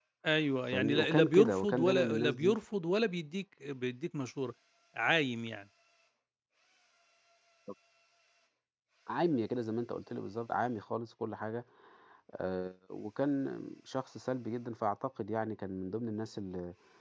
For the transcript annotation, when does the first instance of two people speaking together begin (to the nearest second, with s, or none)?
1 s